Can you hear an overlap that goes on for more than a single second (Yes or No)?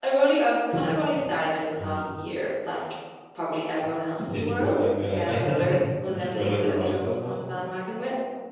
Yes